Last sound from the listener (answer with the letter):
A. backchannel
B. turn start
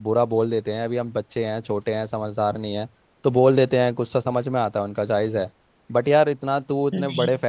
A